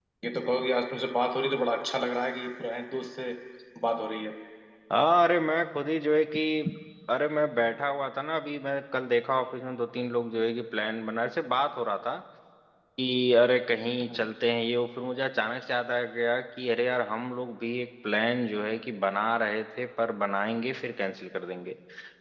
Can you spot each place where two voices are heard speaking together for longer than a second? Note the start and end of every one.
none

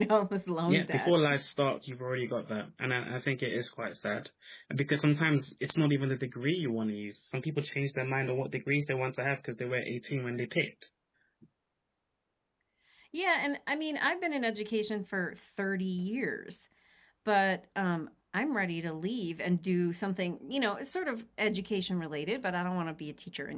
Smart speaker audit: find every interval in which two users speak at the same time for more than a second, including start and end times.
none

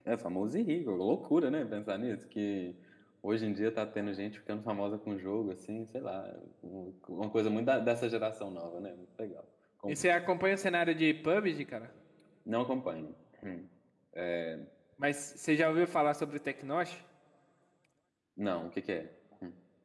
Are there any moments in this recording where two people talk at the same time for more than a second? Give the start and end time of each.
none

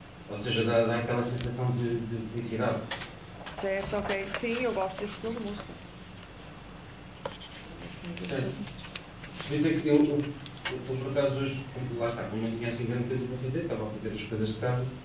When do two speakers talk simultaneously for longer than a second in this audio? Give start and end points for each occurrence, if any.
none

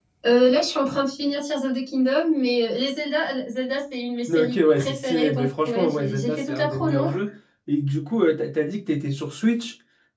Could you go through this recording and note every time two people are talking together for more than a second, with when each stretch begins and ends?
4.3-7.1

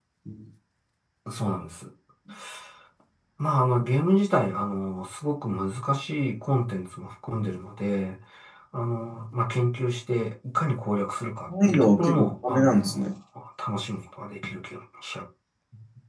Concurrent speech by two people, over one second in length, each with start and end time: 11.5-13.1

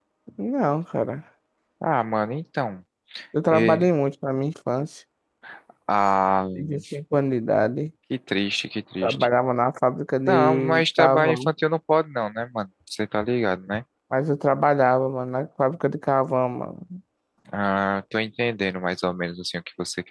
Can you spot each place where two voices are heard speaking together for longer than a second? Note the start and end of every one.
10.3-11.5

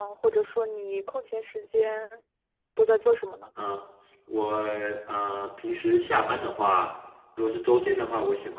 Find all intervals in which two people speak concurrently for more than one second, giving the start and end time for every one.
none

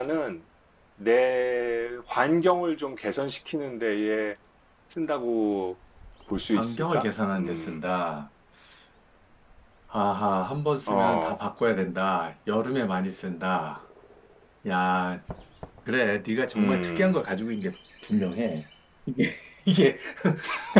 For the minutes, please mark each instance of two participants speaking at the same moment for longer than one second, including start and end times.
6.5-7.8

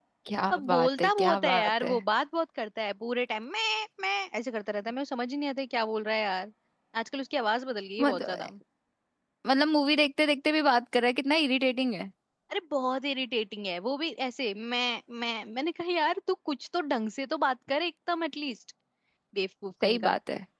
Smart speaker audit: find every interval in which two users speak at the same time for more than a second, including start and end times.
0.5-2.0

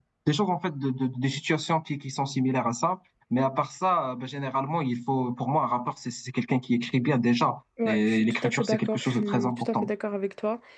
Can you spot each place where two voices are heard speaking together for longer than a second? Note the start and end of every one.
7.8-9.9

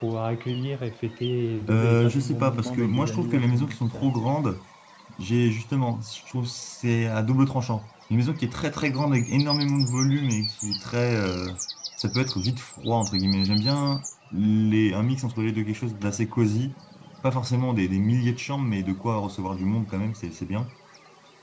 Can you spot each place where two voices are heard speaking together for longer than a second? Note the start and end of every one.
1.7-4.1

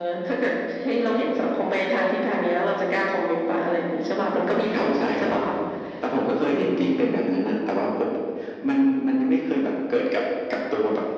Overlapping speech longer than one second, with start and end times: none

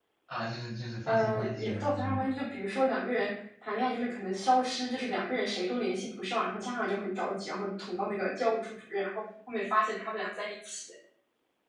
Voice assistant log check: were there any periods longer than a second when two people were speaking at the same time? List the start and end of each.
1.1-2.3

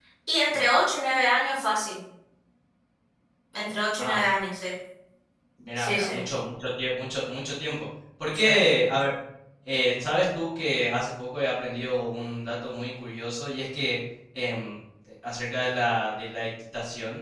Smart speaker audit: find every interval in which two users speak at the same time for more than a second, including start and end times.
none

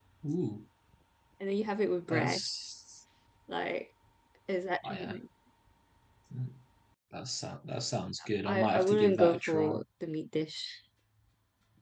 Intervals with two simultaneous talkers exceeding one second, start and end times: 8.4-9.8

